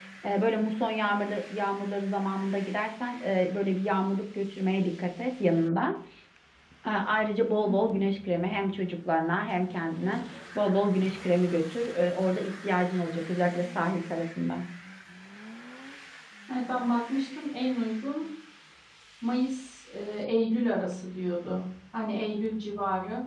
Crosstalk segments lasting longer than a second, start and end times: none

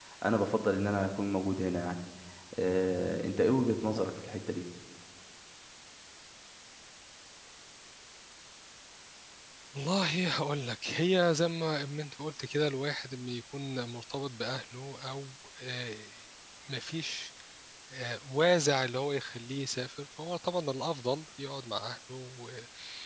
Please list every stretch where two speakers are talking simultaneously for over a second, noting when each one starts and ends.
none

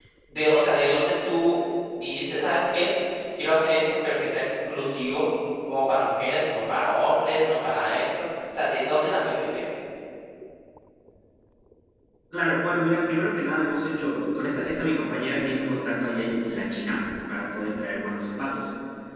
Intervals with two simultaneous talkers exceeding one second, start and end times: none

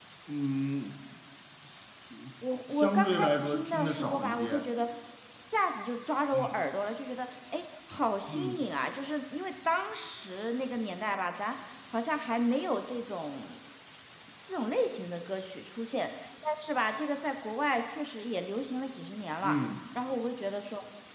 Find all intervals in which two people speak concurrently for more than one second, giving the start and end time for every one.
2.7-4.7

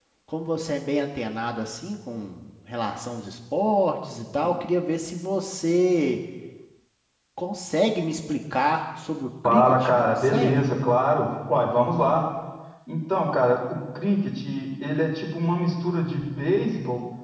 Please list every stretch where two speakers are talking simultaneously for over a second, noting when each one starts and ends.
9.4-10.7

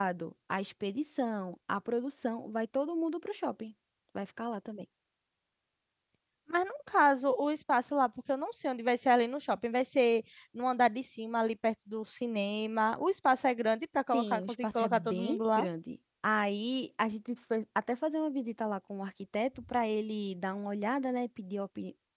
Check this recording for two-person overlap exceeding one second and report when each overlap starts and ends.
14.1-15.7

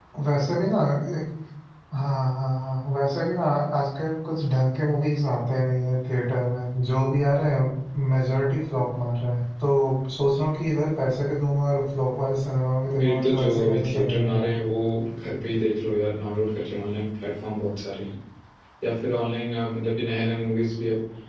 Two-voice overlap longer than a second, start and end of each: 13.0-14.5

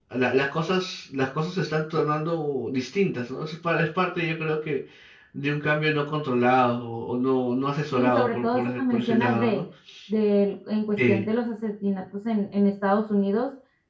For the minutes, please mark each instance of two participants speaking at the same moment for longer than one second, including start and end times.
7.9-9.6

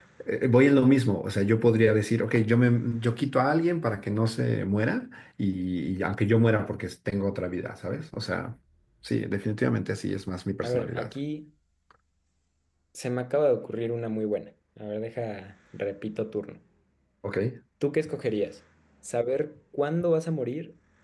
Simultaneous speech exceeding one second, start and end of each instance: none

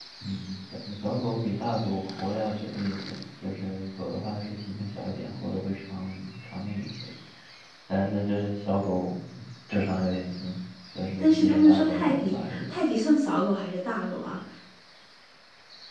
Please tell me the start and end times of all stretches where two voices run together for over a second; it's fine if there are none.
11.2-12.6

